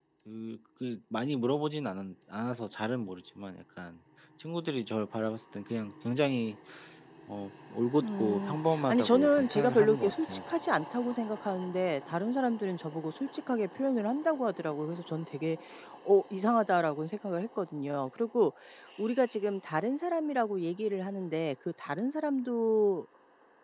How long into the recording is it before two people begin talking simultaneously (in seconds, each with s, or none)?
8.0 s